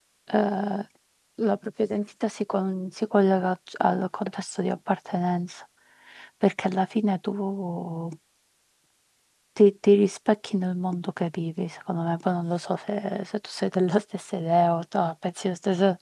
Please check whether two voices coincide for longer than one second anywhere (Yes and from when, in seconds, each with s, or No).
No